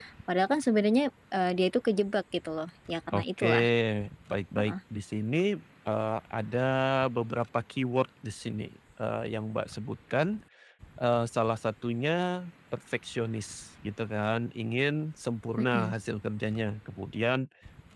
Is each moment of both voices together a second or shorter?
Yes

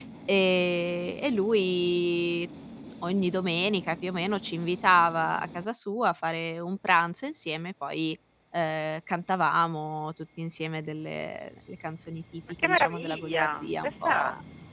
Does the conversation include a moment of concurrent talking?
Yes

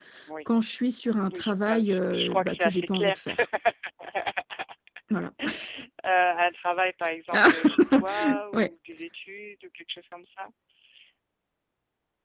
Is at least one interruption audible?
Yes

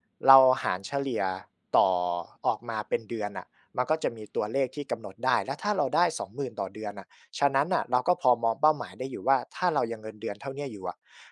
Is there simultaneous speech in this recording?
No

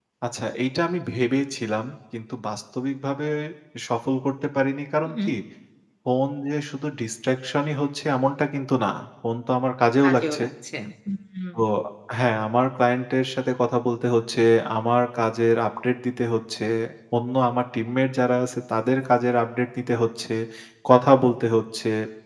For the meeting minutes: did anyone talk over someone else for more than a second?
No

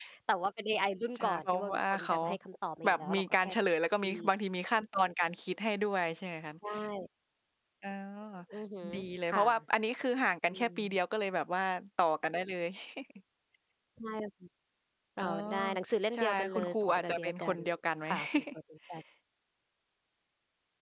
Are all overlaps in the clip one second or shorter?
No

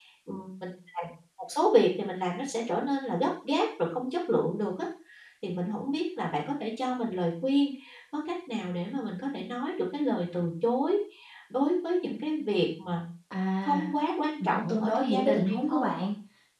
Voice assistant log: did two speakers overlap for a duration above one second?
Yes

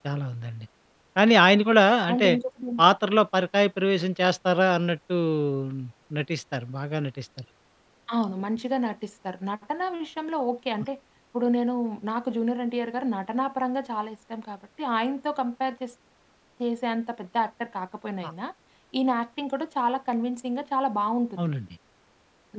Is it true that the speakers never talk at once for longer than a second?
Yes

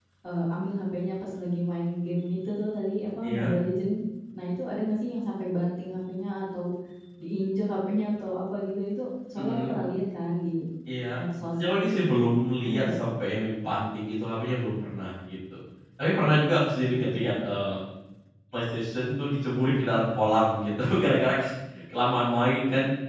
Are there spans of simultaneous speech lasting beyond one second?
No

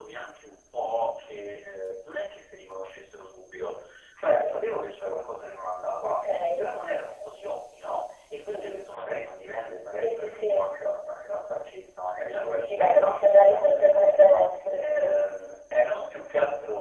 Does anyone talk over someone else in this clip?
Yes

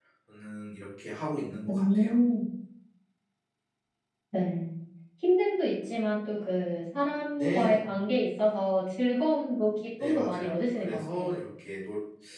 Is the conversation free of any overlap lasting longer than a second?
No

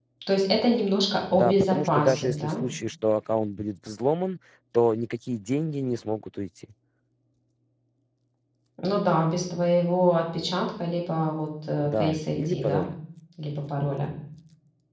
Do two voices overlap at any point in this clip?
Yes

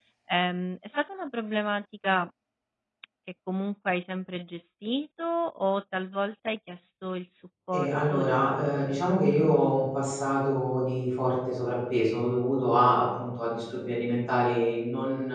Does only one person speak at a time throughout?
No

